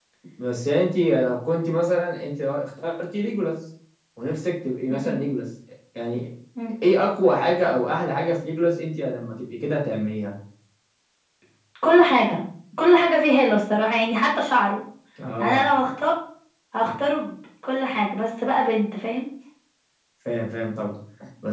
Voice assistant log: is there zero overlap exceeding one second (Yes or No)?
Yes